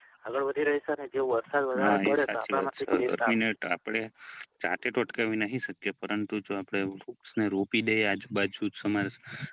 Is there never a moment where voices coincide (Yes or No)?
No